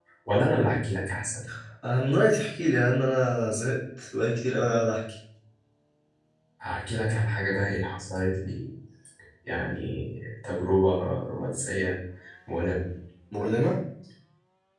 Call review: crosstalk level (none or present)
none